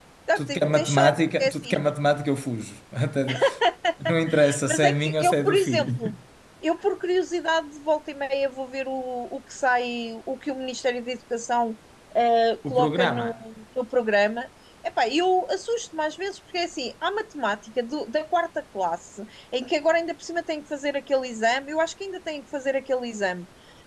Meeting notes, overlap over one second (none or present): present